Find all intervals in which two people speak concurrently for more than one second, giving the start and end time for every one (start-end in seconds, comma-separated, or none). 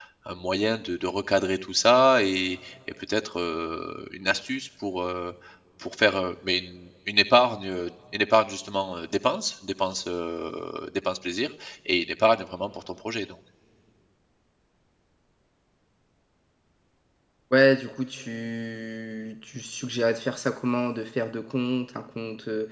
none